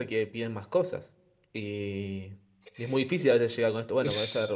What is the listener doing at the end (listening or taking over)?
listening